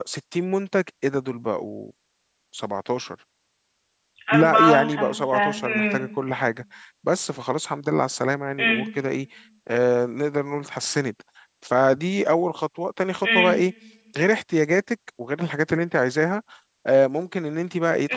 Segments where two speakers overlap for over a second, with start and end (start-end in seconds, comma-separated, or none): 4.3-6.1